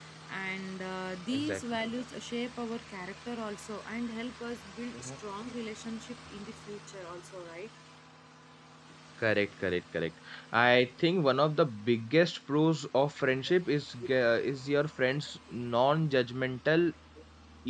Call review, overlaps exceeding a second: none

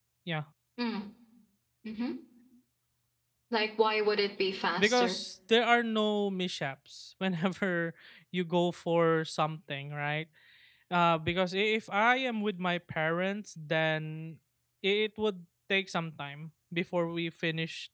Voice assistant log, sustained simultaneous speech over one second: none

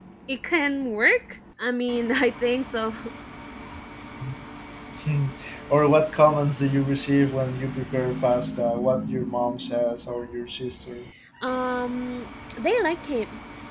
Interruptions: none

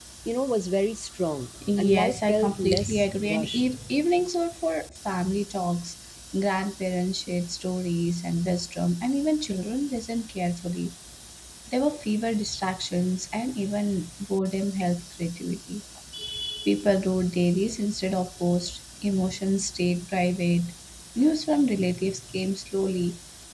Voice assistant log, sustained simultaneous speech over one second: present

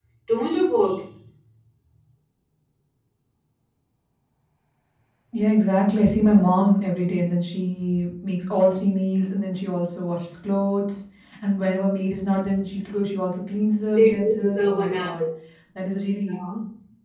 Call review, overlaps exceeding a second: present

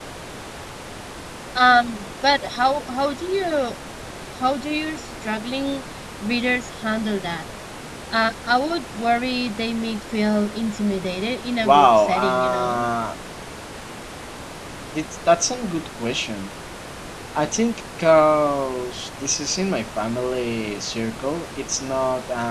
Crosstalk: present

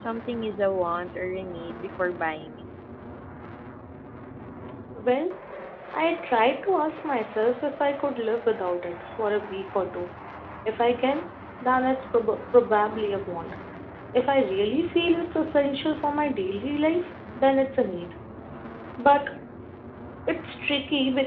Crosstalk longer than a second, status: none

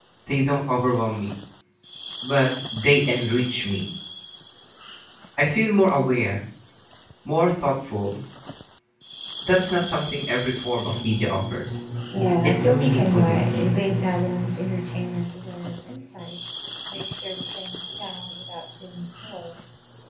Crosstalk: present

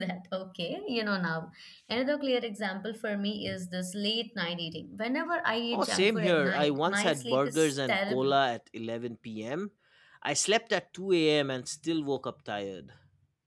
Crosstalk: present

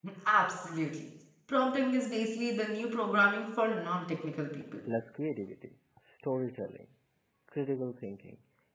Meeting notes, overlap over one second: none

